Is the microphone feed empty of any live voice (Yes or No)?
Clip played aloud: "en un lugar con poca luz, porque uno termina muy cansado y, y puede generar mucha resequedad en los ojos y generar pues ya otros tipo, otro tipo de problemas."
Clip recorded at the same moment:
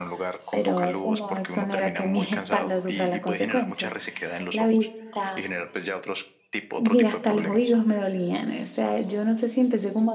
No